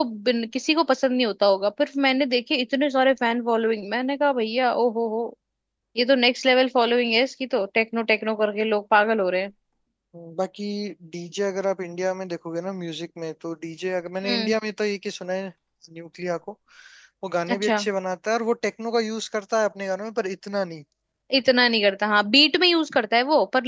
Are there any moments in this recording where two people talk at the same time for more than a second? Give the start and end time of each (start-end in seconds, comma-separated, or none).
none